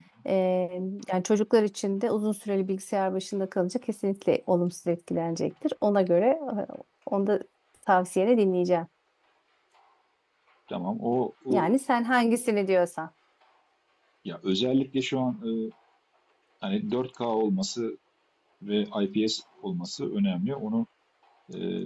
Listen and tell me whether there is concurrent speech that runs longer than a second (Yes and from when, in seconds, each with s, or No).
No